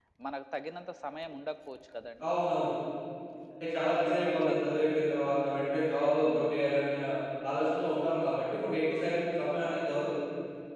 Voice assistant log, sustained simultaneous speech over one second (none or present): none